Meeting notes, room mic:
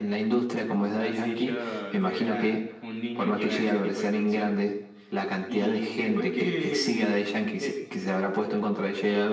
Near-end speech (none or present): none